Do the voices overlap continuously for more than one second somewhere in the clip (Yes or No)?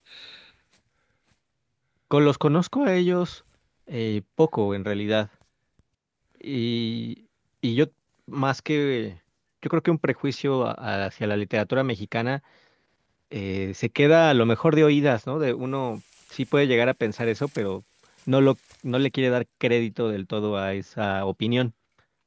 No